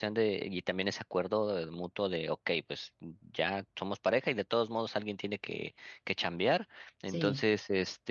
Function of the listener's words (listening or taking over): listening